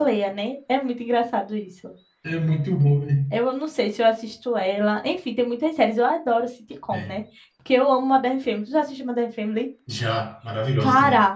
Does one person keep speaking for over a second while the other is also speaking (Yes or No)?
No